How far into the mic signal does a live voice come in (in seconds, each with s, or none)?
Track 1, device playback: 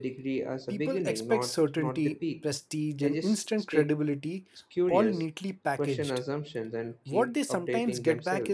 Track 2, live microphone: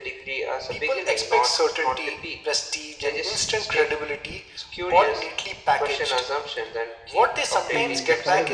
7.5 s